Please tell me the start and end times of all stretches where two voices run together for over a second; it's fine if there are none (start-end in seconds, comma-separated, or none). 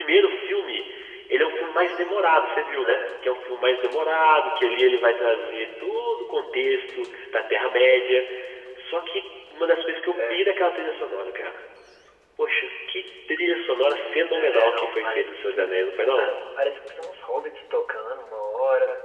14.3-15.7